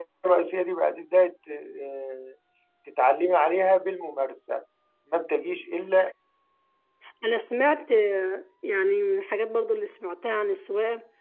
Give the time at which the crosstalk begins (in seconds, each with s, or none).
none